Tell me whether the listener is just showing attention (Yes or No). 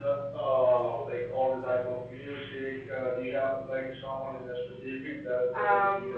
No